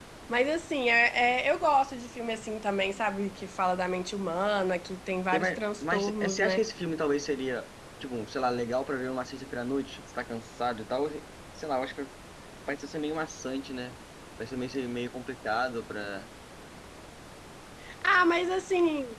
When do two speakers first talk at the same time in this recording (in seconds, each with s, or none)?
5.3 s